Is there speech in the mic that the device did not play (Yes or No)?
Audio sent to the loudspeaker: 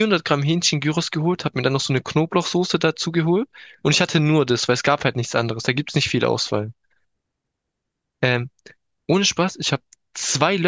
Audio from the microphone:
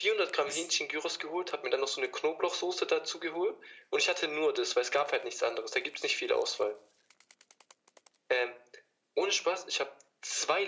Yes